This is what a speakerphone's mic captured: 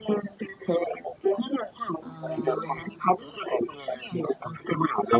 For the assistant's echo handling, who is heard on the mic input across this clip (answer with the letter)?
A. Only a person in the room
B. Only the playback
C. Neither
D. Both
D